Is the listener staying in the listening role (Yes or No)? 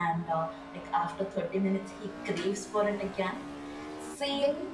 No